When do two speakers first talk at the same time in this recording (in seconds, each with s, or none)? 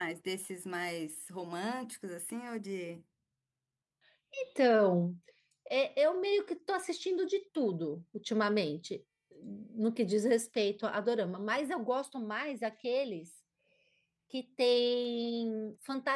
none